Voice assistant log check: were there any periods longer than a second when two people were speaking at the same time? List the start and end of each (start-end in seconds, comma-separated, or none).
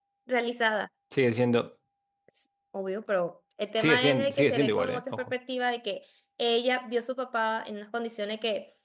3.8-5.3